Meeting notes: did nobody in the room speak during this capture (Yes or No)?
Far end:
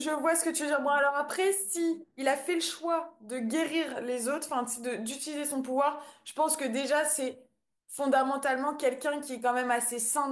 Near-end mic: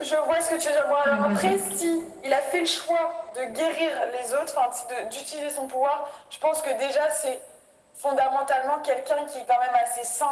No